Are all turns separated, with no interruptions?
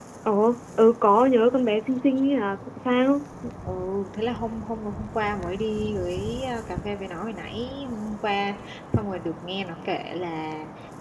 Yes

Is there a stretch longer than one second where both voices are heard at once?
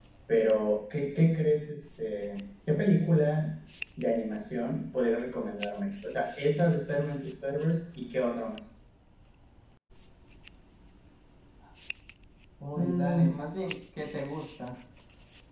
No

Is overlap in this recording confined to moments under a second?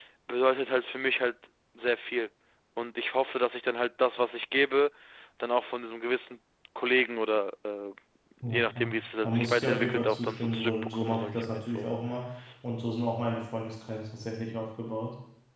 No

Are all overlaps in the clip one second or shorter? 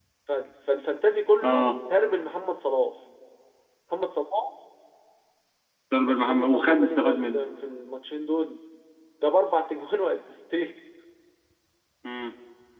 No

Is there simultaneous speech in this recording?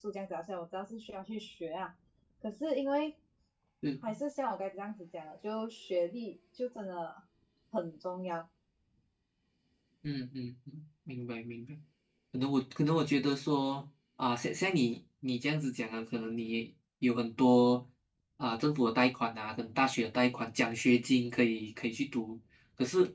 No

